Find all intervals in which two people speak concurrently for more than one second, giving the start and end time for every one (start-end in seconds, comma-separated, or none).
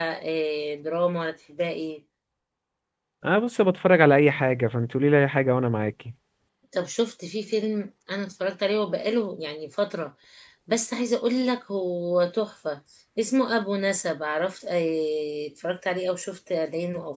none